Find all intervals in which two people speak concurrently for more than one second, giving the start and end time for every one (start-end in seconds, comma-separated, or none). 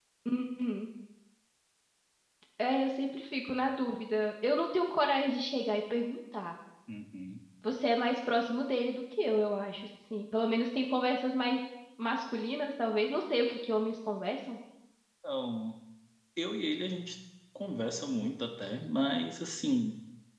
none